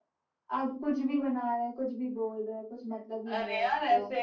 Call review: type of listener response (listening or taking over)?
taking over